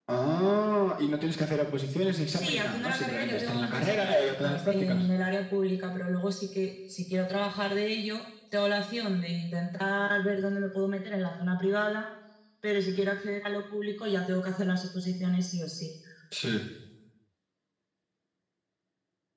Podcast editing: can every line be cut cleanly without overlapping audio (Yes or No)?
No